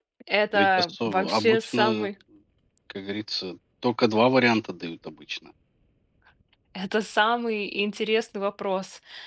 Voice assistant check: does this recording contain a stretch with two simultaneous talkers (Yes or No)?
Yes